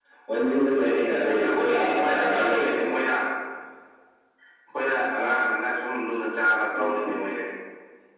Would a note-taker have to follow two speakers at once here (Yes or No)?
Yes